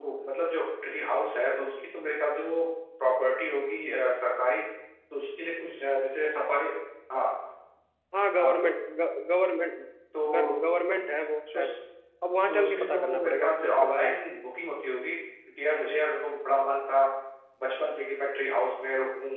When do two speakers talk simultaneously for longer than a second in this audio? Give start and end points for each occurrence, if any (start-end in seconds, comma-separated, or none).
12.5-14.2